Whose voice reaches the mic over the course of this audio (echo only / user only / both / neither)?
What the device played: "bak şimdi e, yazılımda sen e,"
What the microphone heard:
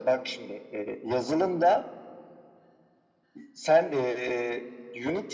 echo only